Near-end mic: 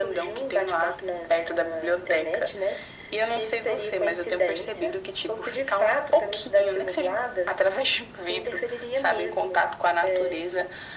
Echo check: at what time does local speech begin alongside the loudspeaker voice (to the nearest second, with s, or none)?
none